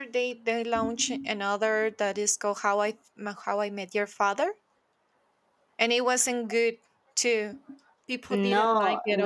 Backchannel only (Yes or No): No